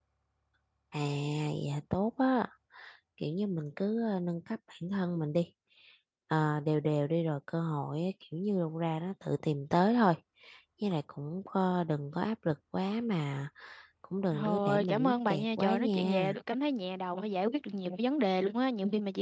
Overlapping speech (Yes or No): Yes